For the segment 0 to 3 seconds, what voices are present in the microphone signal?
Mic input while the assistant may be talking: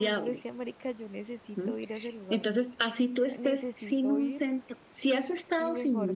both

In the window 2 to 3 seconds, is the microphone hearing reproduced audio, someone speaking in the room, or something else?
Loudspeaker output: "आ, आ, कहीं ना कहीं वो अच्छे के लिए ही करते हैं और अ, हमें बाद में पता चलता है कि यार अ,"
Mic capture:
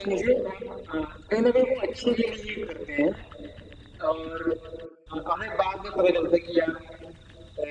echo only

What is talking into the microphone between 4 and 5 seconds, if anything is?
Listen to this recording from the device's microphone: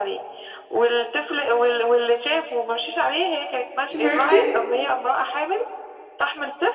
both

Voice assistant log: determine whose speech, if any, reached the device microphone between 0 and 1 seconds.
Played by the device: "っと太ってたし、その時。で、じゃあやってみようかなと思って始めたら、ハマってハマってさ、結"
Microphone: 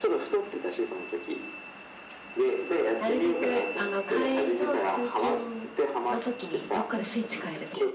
echo only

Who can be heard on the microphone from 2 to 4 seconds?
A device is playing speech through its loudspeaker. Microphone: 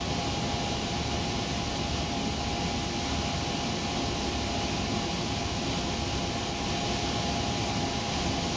neither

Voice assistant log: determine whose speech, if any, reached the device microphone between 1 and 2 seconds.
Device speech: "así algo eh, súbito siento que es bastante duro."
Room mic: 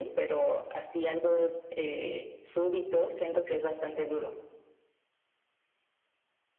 echo only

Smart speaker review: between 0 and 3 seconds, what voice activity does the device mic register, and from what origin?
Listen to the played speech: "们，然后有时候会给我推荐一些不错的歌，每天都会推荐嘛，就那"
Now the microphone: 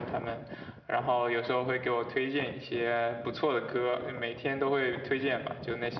echo only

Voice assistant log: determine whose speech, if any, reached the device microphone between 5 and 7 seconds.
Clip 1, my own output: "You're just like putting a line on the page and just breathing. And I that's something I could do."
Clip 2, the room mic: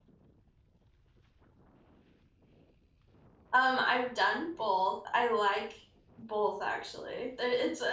user only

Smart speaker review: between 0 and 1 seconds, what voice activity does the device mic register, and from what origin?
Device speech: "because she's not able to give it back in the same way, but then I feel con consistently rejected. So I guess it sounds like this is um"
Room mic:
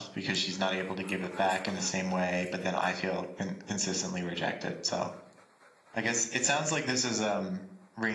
echo only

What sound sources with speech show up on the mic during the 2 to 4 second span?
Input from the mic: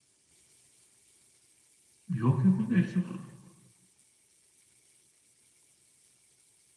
user only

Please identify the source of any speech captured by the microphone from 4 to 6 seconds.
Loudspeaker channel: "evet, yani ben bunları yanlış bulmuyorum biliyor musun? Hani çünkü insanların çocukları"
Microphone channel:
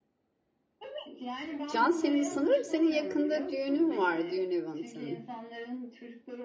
both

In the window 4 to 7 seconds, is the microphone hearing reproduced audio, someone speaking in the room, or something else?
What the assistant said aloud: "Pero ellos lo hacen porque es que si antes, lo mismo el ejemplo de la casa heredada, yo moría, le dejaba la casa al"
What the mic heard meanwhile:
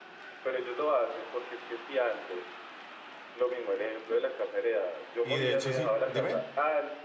both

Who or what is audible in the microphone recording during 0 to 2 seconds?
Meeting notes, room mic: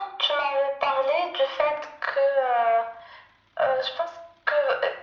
echo only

